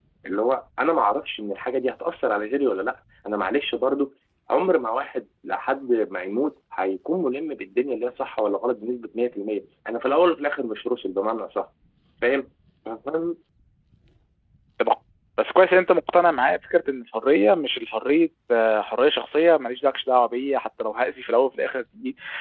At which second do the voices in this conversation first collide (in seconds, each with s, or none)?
none